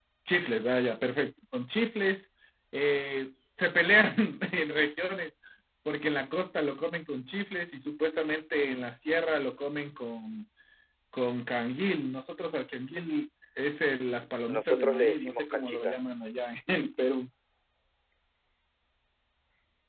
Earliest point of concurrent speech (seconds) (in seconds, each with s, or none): 14.5 s